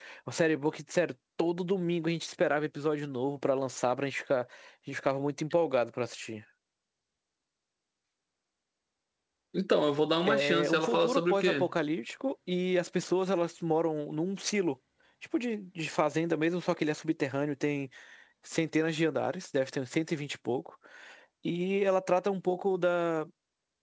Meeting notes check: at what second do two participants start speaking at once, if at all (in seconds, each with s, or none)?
10.2 s